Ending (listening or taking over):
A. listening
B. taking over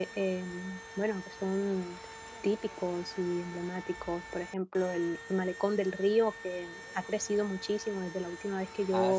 B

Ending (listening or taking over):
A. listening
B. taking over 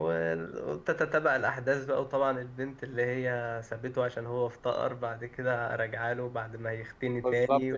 B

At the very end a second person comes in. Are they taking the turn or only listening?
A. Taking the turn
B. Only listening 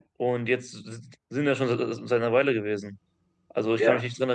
B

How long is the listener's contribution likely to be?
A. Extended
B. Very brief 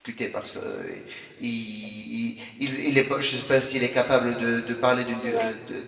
B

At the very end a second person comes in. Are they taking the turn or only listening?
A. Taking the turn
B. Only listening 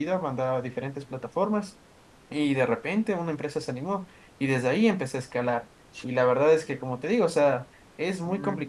B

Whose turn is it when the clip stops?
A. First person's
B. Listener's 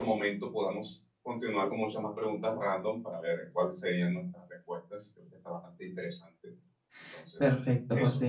B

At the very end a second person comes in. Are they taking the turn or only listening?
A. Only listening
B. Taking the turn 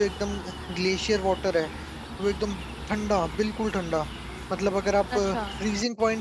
A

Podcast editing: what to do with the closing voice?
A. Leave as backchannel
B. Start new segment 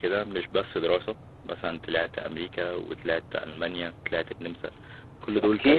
B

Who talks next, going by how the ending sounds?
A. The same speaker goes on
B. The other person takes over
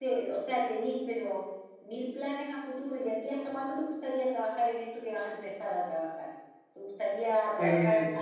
A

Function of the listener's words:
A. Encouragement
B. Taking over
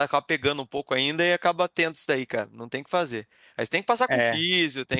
A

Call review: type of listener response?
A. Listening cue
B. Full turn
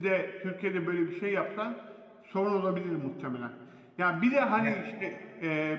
A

